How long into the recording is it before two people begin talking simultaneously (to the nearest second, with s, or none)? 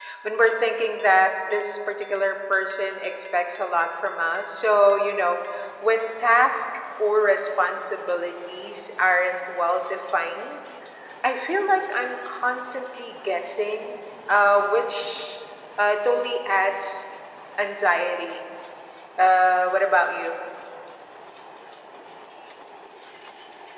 none